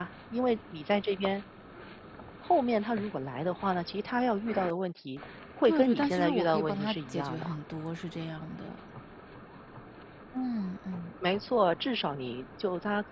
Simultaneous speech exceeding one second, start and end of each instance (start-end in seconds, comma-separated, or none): 5.6-7.5